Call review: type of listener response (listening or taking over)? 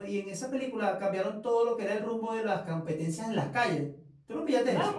taking over